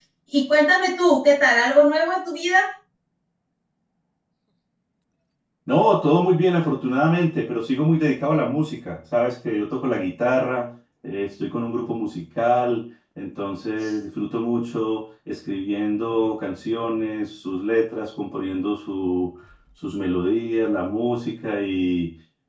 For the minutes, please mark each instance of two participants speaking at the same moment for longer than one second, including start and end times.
none

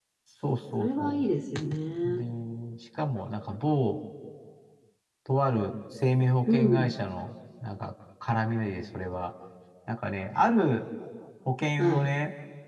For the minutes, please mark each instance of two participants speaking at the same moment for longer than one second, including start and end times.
none

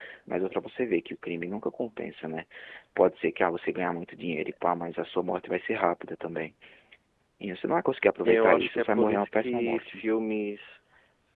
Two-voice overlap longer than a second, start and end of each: 8.2-10.0

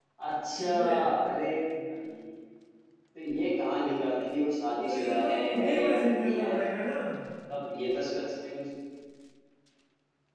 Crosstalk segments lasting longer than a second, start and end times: 4.9-6.6

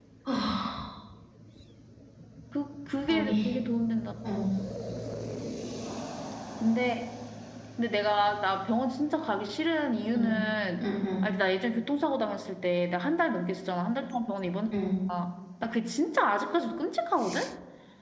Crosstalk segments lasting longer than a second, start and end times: none

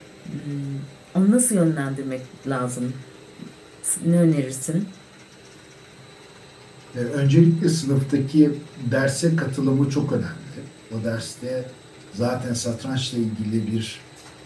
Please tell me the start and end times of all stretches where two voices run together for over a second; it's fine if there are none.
none

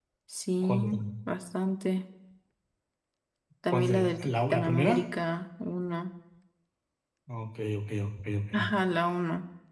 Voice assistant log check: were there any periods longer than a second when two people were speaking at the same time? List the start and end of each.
3.7-5.0

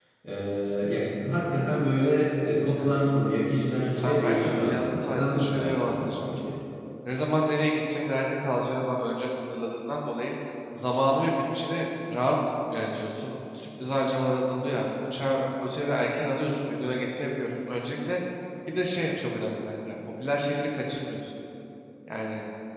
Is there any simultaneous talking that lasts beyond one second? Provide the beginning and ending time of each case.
4.0-6.4

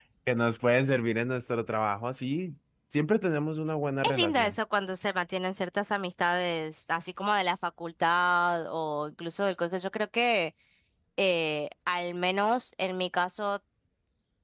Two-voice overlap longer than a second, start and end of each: none

